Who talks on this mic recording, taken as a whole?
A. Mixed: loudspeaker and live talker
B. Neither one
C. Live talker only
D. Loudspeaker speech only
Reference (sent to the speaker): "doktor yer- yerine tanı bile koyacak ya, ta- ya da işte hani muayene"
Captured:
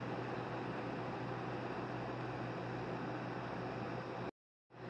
B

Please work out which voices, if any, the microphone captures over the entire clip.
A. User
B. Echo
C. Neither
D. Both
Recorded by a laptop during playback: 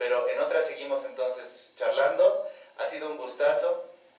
B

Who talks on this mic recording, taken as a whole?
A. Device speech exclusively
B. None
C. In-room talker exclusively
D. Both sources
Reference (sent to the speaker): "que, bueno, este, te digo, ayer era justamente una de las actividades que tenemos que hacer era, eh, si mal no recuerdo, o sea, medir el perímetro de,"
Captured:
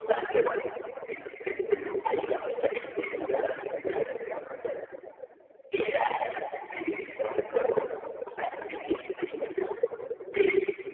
A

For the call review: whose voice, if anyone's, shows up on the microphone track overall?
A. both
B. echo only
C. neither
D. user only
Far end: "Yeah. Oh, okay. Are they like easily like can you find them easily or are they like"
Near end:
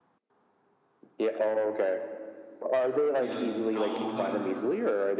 A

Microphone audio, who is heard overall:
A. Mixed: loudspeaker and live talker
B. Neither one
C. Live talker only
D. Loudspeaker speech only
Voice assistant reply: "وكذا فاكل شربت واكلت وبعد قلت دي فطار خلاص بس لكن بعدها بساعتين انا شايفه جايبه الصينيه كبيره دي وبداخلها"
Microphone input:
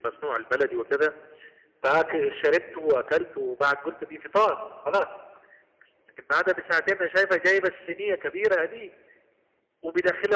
D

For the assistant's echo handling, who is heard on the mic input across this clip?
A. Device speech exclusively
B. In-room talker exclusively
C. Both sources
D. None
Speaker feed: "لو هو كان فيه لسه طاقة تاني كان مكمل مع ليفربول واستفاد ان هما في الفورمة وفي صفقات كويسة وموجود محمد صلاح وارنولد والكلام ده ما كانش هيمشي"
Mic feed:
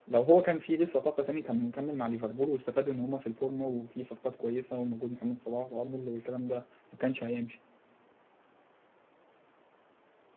A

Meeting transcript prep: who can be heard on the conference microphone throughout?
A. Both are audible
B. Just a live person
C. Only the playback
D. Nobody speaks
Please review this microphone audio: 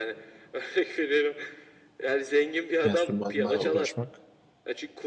A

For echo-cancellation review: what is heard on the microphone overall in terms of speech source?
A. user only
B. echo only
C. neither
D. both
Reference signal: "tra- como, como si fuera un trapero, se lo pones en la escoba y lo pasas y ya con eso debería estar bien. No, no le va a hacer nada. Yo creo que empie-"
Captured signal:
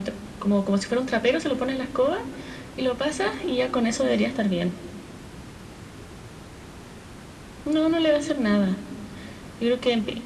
B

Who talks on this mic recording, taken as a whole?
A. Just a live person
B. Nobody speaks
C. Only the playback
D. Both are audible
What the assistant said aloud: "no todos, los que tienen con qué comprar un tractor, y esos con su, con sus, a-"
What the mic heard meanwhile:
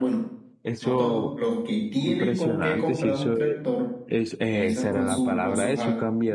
D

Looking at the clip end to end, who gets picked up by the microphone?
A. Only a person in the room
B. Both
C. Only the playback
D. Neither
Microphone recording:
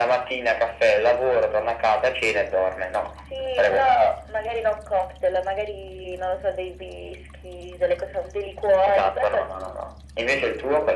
C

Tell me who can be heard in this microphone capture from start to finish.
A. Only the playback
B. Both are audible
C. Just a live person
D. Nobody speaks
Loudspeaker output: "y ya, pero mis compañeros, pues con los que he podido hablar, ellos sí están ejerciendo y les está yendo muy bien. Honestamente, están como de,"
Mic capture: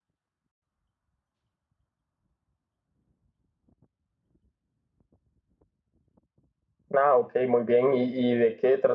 C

